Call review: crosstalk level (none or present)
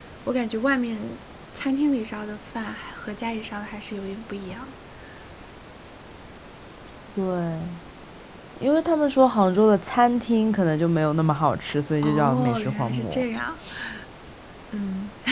present